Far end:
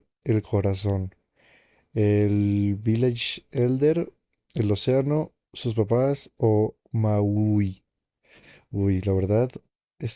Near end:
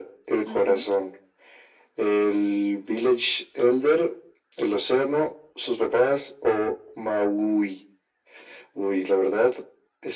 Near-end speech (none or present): present